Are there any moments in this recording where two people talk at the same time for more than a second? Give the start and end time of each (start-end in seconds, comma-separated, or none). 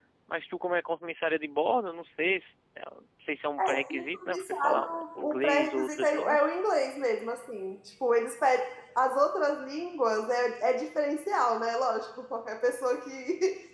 3.6-6.4